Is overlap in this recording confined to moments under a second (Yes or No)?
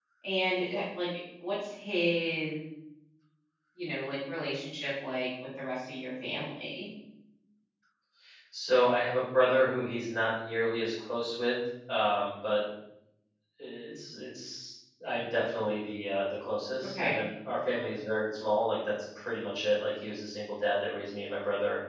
Yes